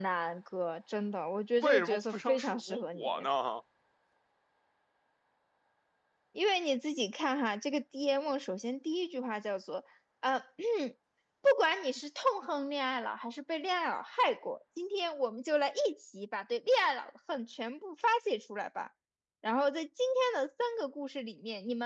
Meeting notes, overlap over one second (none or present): present